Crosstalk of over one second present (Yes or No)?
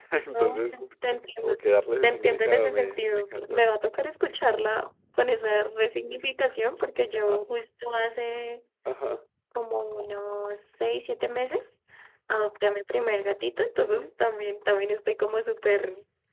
Yes